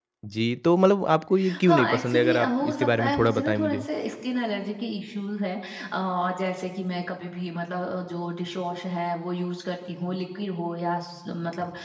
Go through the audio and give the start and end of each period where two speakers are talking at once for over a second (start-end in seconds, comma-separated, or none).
1.6-3.9